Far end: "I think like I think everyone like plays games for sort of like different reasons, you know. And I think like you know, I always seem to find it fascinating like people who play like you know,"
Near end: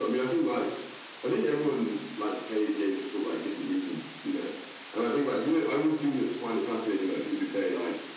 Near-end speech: none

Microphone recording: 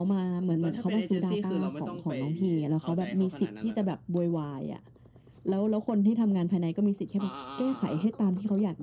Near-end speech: none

